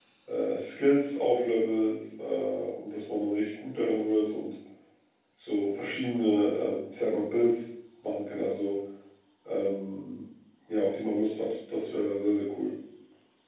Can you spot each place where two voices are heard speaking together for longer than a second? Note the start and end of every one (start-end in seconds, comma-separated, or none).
none